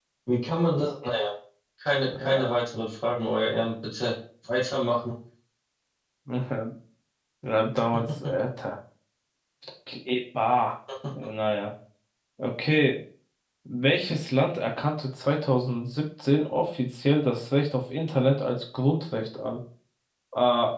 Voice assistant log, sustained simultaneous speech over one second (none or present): none